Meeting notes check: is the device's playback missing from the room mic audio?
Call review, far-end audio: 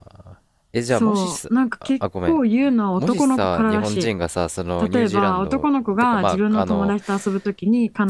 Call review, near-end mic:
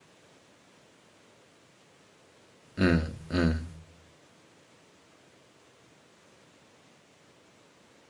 Yes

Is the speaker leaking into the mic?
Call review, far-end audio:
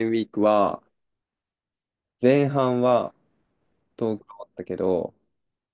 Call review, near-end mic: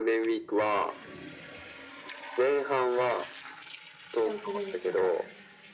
Yes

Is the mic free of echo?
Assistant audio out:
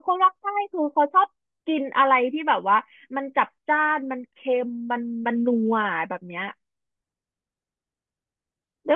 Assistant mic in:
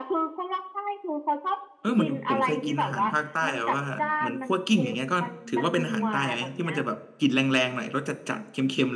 No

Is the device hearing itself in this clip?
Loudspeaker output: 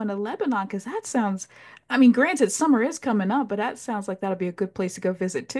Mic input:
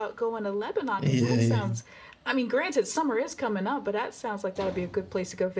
Yes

